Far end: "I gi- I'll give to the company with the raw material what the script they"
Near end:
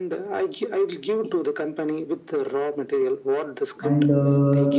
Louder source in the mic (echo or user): user